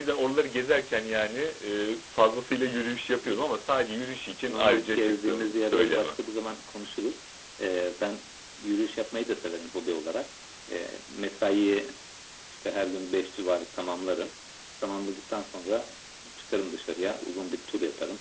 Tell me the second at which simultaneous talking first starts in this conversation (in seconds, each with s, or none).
4.5 s